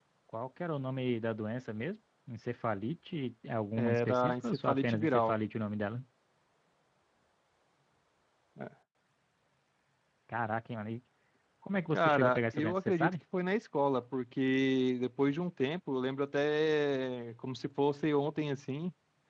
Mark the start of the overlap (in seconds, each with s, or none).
3.8 s